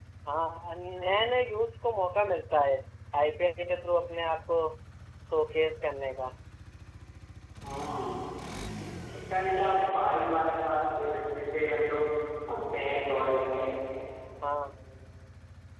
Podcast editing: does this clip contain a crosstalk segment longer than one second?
No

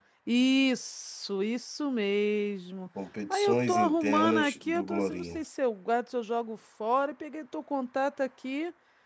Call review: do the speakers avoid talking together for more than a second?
No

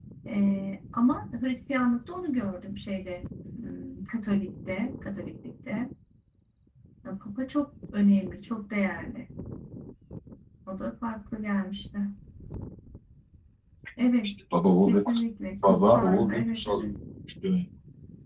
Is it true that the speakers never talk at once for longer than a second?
No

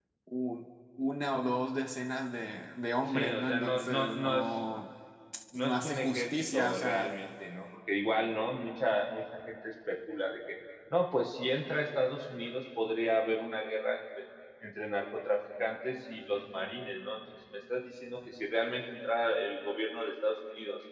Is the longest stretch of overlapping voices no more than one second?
No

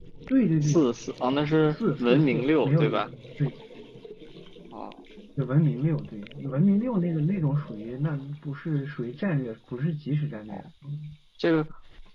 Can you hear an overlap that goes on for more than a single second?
Yes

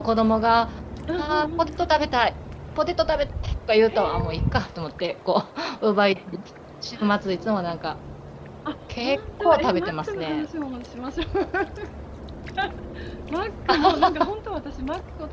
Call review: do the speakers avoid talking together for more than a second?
No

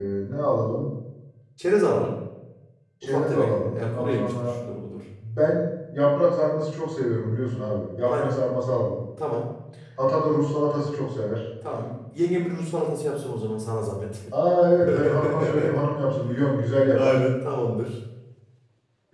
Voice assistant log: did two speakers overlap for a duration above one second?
Yes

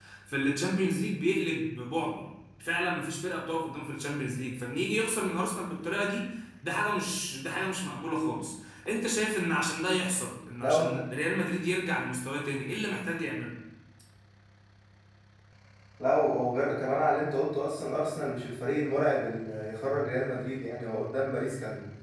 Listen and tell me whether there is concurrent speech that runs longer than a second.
No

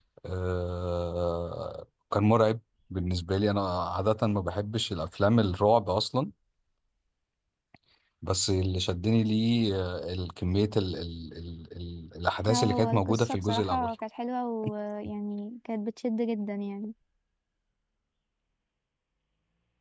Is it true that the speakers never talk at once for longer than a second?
No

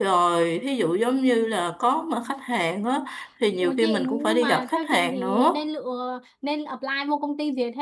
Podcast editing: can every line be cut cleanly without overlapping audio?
No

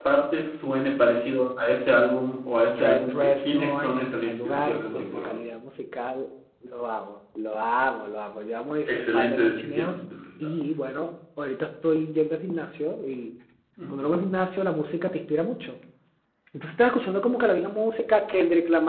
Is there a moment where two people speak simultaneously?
Yes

